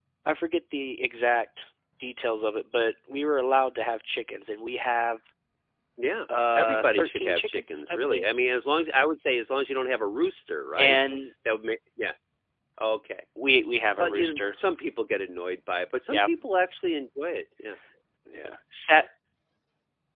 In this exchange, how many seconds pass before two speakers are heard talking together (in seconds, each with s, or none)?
6.3 s